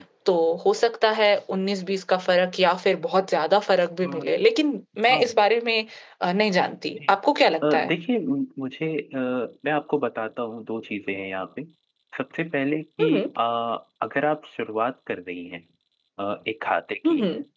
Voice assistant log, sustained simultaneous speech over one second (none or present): none